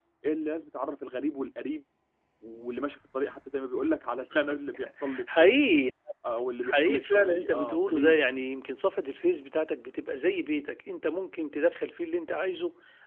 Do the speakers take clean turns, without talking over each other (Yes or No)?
No